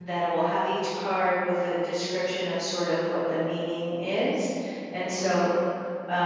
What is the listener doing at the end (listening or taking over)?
listening